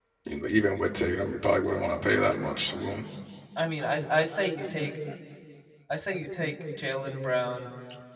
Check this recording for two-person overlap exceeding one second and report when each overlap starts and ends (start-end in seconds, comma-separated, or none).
none